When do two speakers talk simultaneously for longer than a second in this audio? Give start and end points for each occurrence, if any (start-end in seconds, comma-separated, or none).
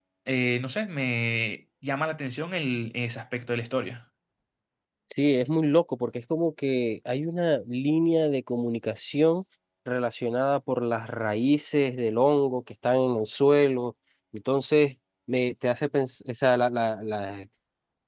none